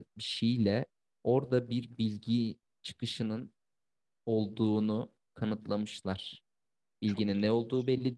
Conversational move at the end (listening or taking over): listening